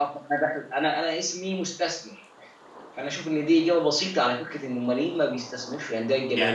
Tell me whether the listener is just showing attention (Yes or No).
No